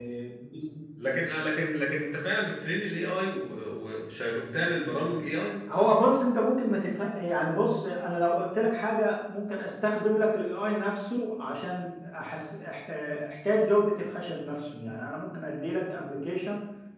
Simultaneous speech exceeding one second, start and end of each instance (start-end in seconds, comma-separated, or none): none